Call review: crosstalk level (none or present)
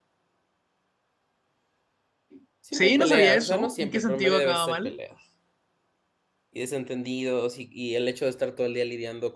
present